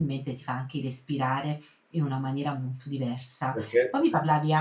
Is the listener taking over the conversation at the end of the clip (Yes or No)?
No